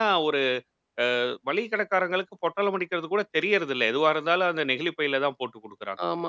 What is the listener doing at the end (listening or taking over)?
taking over